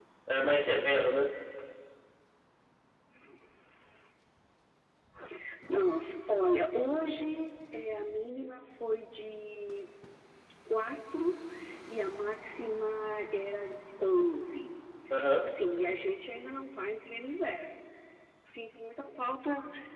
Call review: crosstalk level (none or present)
none